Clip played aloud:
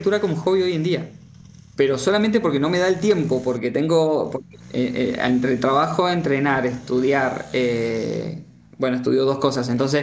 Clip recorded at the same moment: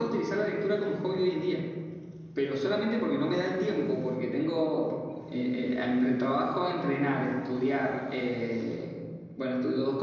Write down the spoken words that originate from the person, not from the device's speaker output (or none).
none